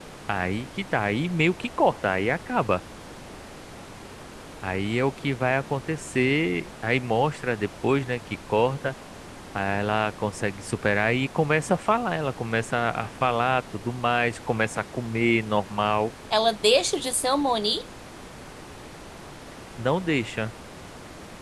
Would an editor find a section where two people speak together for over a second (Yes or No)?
No